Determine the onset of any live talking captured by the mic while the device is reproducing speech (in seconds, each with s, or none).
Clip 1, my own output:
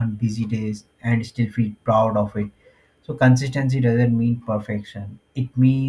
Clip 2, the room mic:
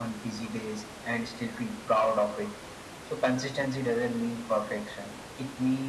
none